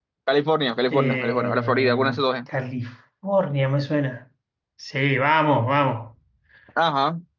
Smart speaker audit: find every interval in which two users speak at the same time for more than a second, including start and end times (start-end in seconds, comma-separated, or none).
0.9-2.2